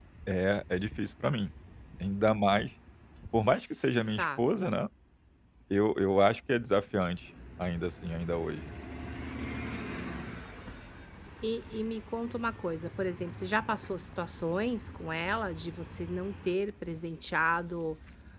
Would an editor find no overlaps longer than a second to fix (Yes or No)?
Yes